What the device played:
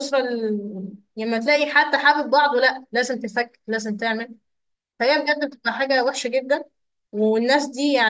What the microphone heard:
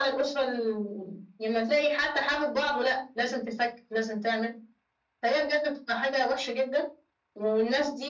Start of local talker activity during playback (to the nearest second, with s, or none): none